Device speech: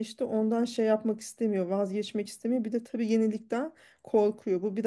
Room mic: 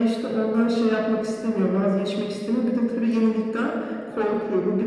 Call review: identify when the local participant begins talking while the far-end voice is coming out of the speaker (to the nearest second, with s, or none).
none